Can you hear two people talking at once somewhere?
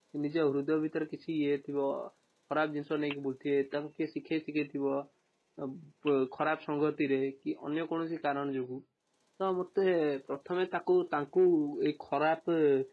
No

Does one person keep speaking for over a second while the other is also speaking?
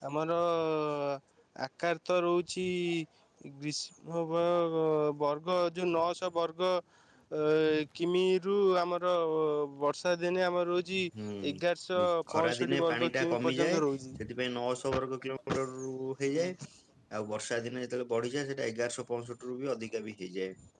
Yes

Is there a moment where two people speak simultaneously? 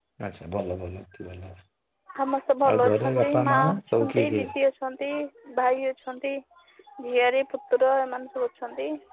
Yes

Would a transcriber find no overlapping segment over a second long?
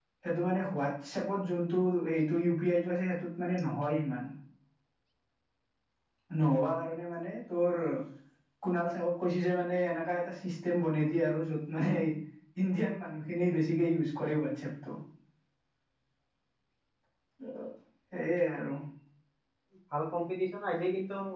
Yes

